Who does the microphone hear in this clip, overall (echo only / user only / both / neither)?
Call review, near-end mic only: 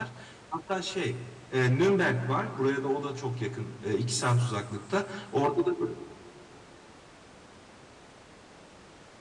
user only